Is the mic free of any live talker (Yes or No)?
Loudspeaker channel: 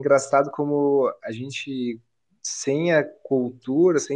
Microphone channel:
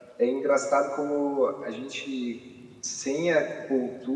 Yes